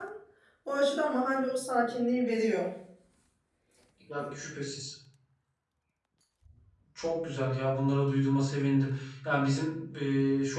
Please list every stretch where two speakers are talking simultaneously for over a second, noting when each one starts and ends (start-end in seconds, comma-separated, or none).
none